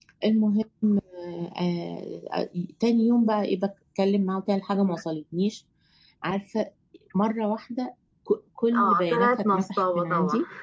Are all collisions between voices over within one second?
No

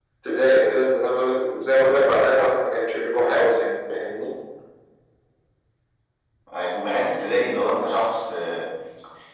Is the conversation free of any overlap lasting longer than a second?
Yes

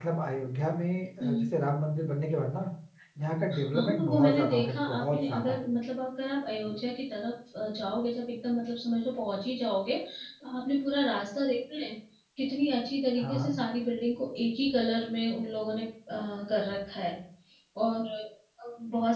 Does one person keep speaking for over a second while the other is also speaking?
Yes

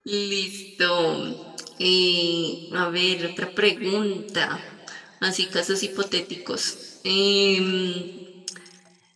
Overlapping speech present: No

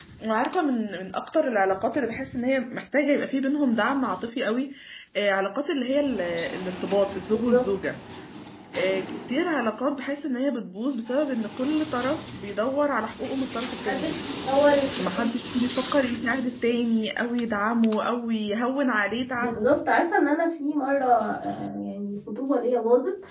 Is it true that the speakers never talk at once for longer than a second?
Yes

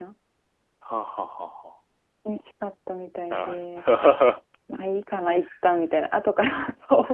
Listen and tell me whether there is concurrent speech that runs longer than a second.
No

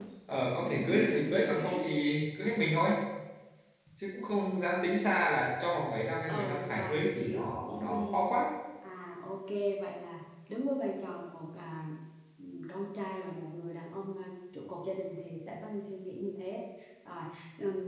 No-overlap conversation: No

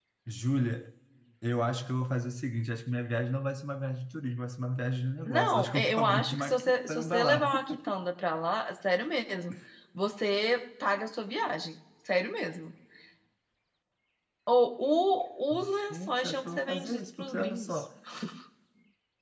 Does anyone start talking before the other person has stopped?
Yes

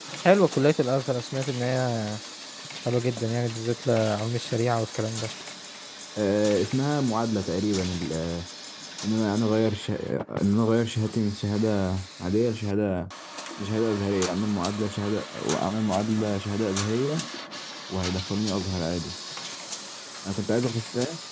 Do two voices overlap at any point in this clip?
No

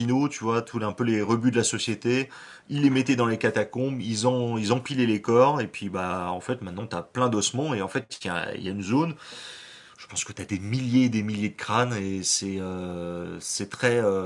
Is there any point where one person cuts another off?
No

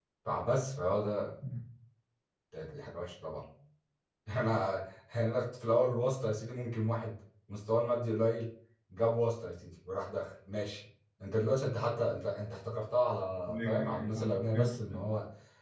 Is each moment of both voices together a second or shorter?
No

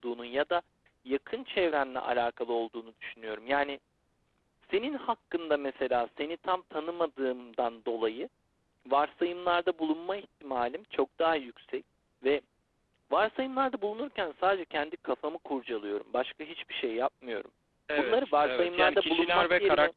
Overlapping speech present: Yes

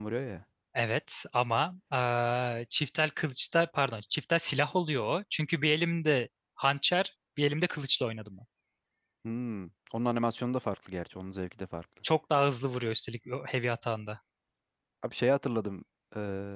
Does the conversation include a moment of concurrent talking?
No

